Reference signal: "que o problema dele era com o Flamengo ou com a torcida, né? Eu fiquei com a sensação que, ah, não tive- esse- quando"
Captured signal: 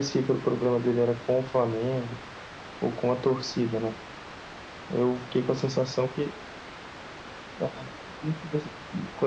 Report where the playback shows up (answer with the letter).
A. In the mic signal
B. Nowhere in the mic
A